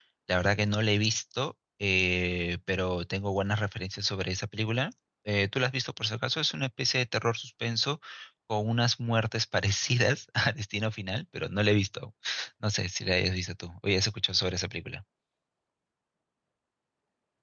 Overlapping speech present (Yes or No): No